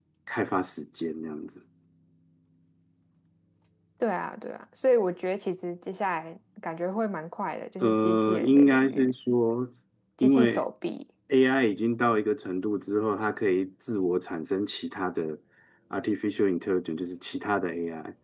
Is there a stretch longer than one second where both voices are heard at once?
Yes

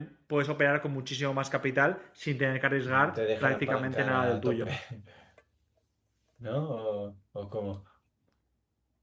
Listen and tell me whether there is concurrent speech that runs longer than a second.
Yes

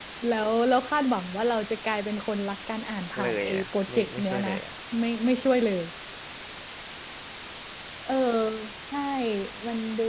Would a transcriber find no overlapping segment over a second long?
No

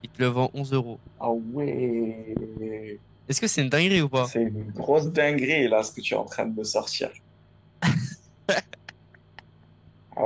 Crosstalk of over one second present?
No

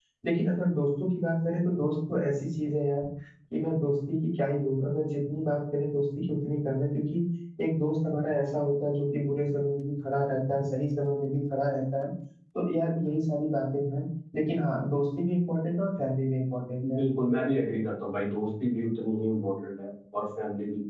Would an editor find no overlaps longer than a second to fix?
Yes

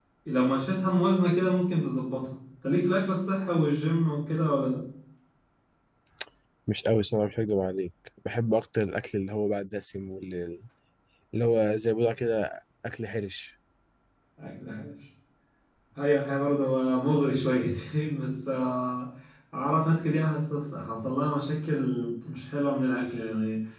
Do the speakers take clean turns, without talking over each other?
Yes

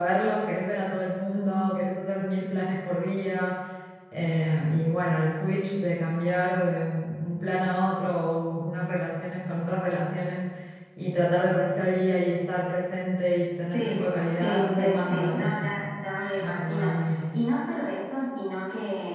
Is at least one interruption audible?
Yes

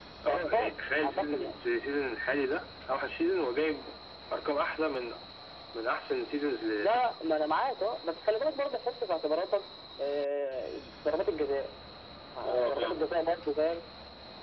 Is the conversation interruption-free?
No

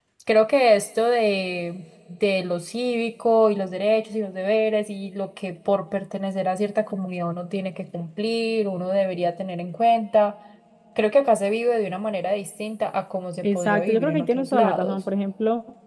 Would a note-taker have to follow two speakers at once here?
Yes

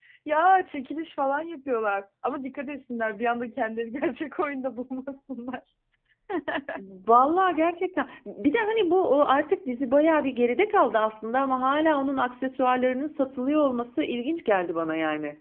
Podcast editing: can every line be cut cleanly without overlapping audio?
Yes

